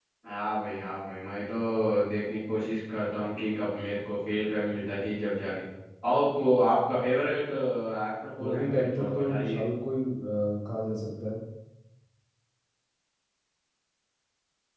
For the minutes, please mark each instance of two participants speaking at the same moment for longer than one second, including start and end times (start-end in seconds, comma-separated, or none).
8.4-9.6